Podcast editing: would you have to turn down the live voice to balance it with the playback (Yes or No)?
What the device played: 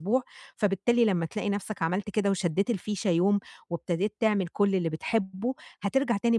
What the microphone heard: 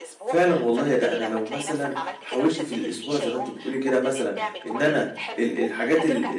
Yes